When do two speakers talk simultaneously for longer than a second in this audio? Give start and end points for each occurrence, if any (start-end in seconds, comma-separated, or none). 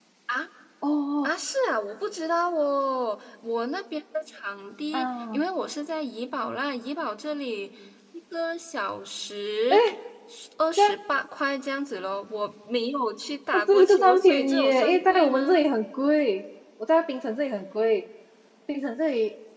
13.5-15.6